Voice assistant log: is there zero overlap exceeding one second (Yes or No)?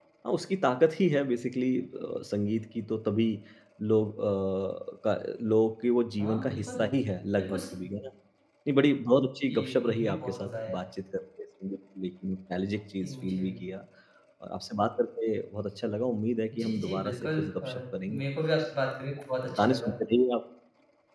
No